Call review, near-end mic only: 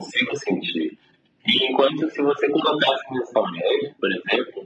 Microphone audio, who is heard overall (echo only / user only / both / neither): echo only